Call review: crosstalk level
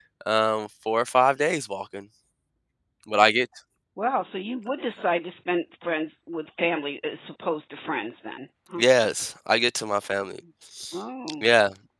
none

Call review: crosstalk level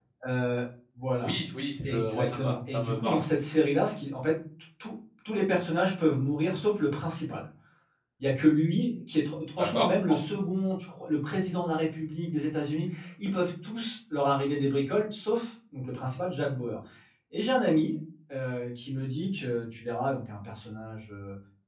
present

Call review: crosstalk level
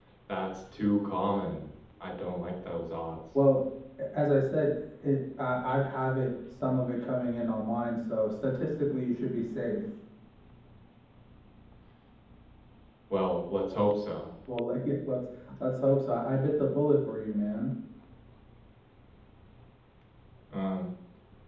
none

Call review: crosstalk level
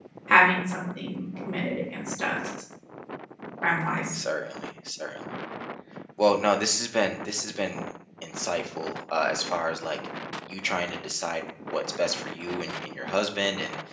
none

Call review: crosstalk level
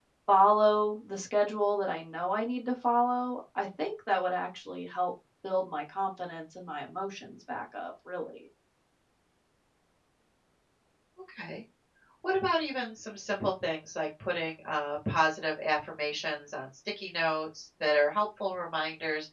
none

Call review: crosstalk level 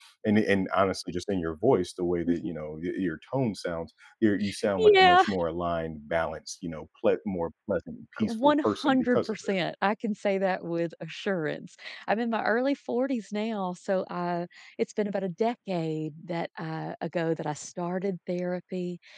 present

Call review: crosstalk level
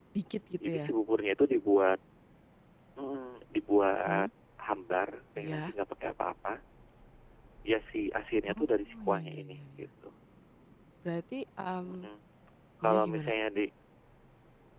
present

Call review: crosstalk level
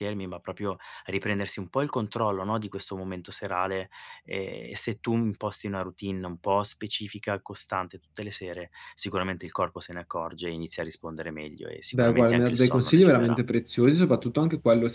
present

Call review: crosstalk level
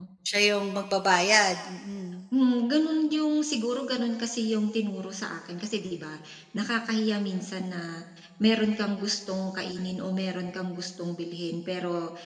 none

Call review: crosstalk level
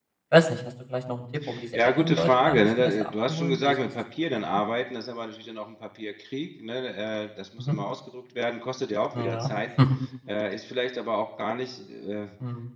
present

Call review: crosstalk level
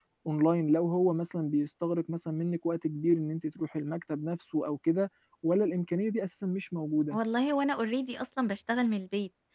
none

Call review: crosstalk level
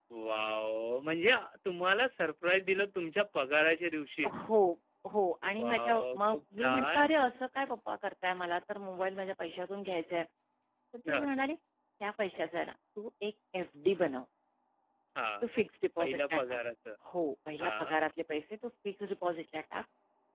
present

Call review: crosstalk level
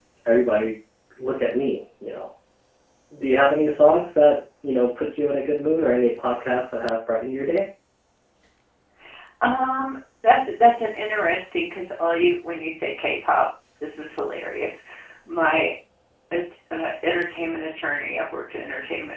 none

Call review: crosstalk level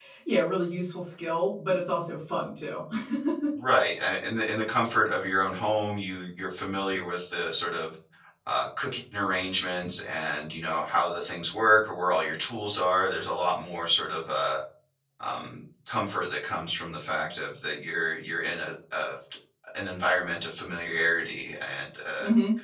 none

